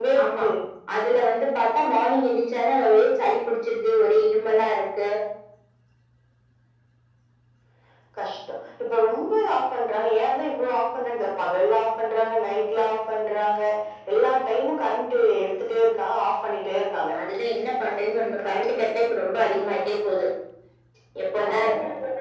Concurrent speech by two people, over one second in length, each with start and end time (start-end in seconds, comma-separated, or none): none